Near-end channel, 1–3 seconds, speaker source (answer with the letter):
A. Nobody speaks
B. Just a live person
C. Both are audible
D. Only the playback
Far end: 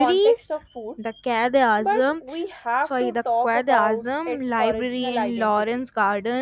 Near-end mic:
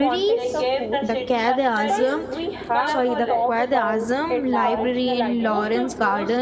C